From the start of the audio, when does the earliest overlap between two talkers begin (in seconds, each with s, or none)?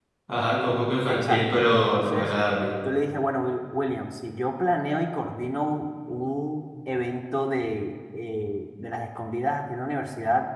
1.1 s